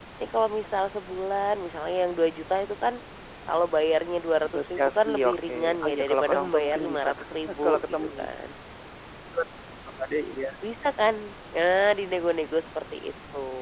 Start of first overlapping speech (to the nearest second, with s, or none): 4 s